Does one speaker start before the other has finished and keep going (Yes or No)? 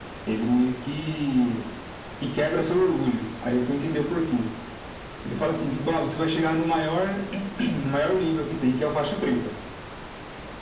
No